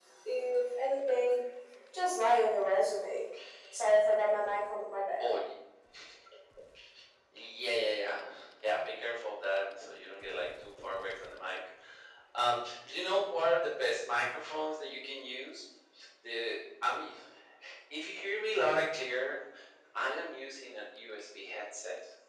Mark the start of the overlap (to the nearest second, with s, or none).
none